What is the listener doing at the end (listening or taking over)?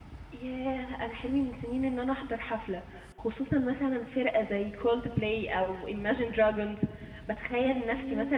listening